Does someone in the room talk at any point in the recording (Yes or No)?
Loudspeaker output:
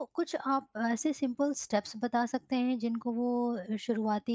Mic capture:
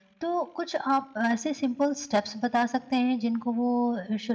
No